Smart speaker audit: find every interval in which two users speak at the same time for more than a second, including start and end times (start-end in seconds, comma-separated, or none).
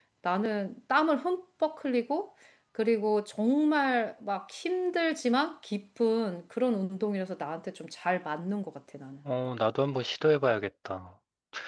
none